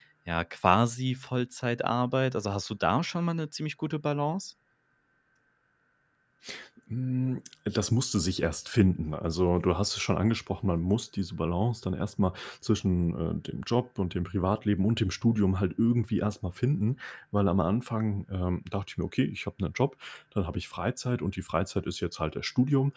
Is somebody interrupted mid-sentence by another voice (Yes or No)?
No